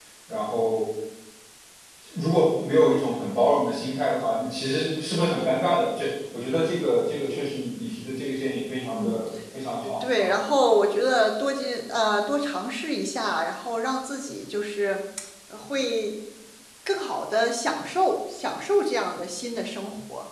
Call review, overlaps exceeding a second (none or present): none